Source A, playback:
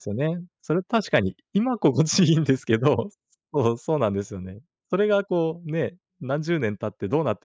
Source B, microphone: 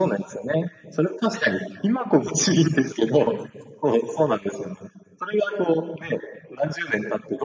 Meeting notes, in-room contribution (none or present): none